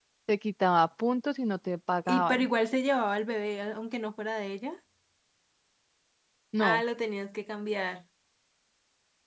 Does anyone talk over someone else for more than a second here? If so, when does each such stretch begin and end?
none

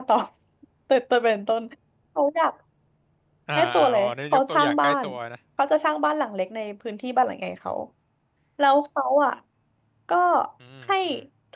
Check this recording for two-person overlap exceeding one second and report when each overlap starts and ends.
3.5-5.0

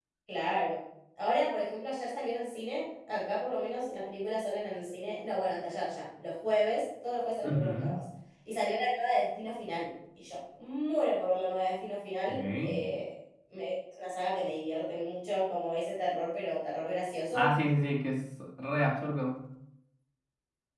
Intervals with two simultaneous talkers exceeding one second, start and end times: none

